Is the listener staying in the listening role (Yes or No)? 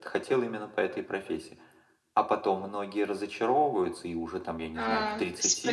No